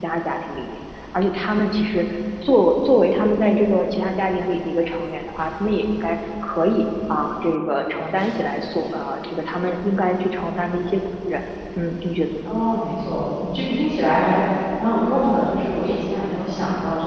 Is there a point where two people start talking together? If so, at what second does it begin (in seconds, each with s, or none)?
none